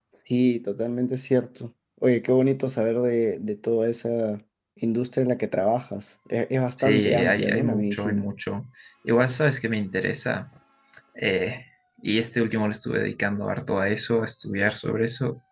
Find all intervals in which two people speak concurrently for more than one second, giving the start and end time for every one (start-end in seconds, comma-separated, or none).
6.8-8.3